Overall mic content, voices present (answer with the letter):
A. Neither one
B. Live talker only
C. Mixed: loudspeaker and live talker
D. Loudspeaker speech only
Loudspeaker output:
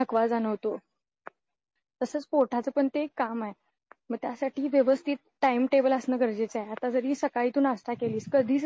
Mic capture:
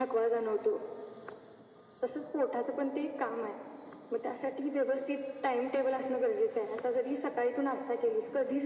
D